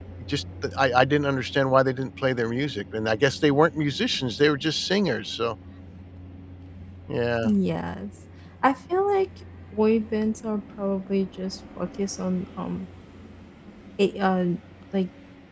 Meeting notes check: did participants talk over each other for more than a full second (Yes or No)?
No